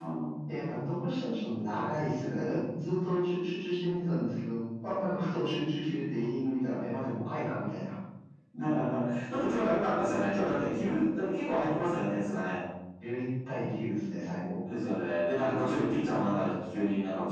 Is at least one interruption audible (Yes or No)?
No